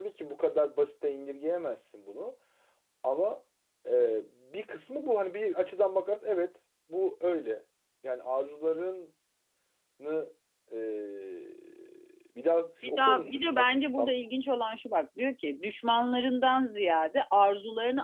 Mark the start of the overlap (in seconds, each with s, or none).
12.8 s